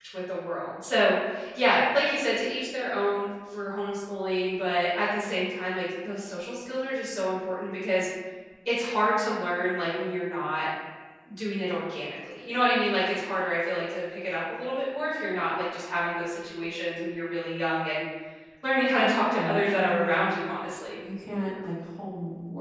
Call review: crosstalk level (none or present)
present